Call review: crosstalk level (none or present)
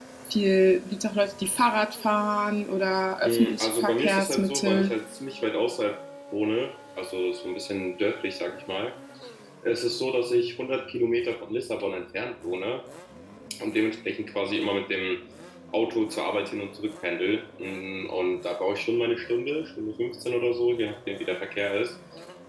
present